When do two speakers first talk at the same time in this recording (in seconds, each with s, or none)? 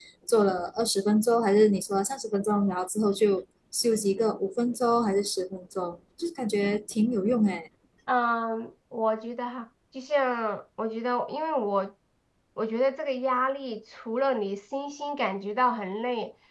none